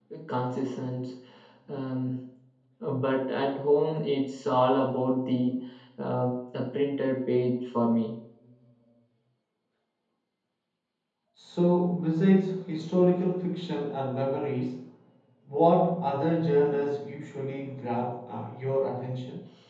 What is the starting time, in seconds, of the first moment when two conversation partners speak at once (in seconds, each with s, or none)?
none